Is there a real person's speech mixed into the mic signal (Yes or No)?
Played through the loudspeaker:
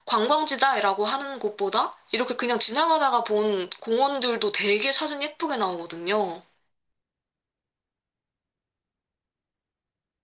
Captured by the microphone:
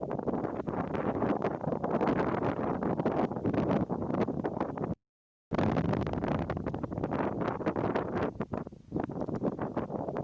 No